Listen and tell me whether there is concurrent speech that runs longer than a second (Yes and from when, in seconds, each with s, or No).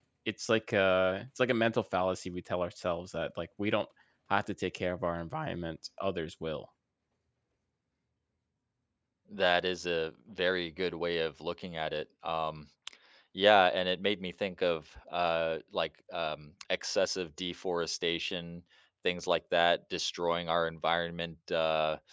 No